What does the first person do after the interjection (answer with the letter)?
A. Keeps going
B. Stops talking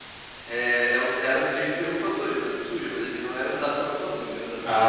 B